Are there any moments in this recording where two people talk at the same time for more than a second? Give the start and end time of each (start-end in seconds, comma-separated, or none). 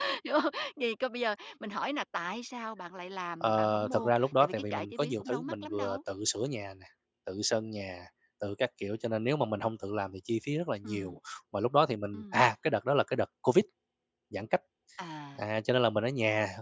3.4-6.0